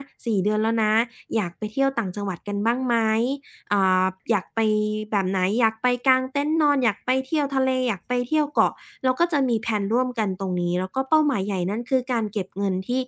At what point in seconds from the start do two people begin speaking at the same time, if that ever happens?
none

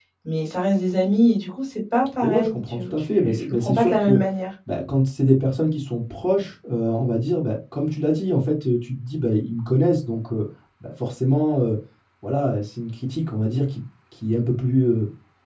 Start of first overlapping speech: 2.2 s

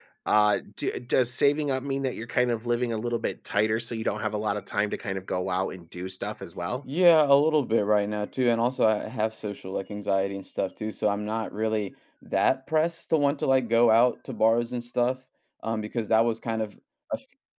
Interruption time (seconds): none

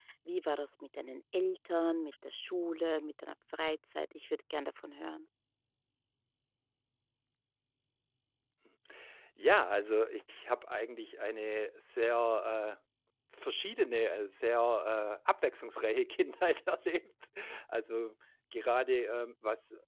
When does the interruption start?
none

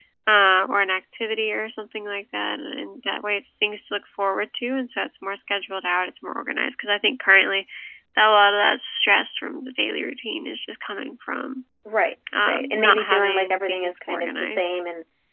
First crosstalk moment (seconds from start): 12.4 s

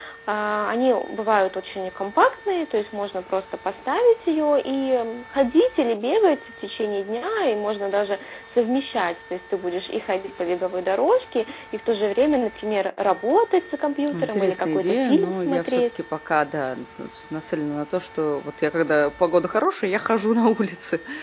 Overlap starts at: 14.1 s

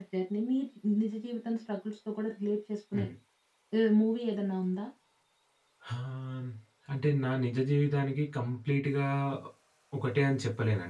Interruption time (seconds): none

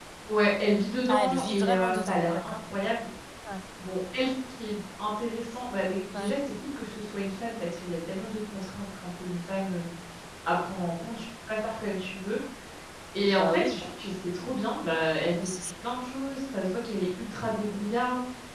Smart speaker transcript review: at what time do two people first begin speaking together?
1.1 s

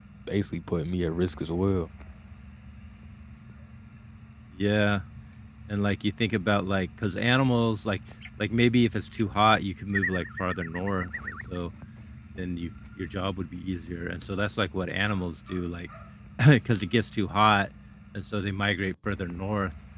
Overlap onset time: none

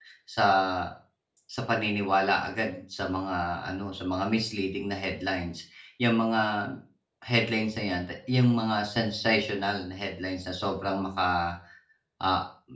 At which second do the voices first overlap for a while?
none

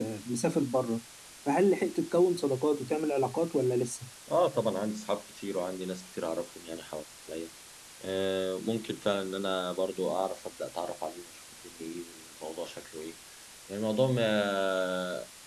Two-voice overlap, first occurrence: none

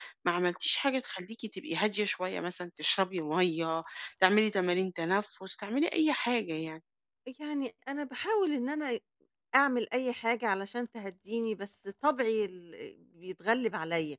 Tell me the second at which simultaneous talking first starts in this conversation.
none

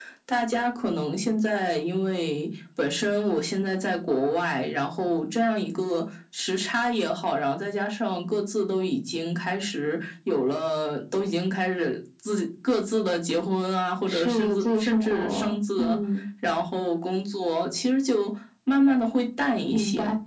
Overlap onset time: 14.1 s

